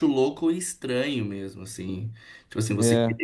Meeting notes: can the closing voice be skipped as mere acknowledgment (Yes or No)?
Yes